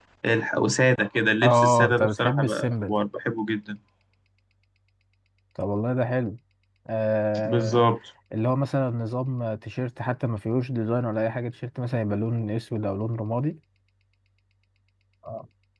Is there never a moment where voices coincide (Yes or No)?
No